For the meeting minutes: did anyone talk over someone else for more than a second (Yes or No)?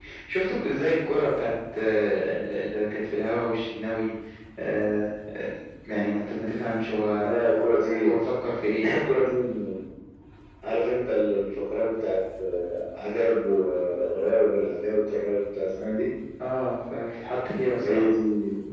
No